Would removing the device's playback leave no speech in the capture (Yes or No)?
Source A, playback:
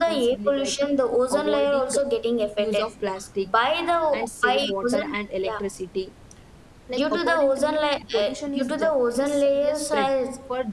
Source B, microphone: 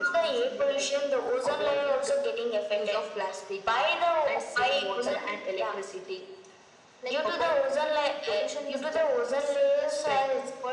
Yes